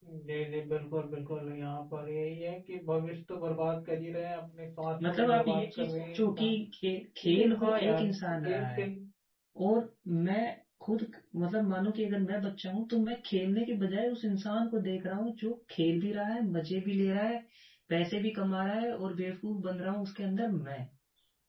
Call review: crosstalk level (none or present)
present